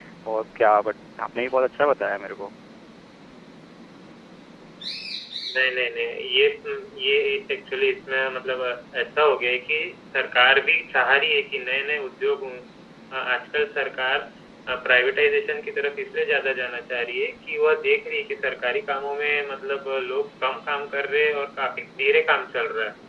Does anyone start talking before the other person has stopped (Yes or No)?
No